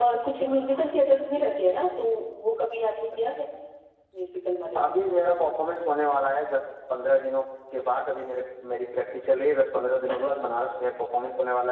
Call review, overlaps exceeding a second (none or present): none